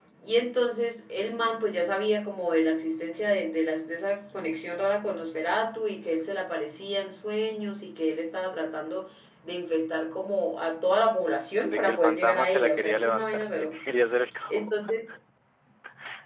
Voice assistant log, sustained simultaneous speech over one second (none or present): present